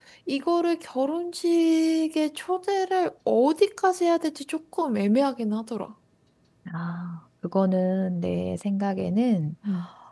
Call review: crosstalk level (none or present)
none